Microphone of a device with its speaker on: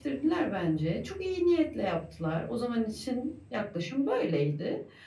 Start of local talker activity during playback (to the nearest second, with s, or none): none